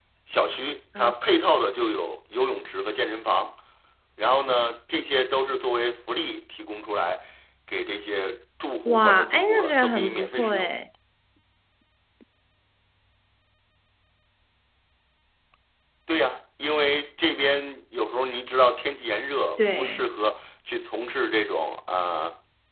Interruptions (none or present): present